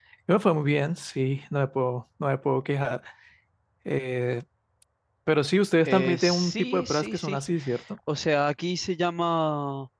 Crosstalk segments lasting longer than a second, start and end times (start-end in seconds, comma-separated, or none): 5.8-7.4